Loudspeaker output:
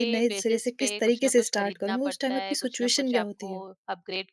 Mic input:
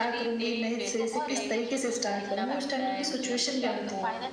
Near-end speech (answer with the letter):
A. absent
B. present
B